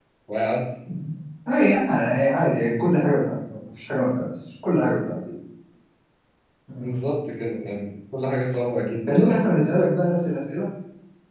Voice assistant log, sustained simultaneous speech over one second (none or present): none